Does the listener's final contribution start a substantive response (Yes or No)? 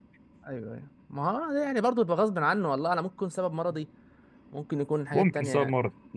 Yes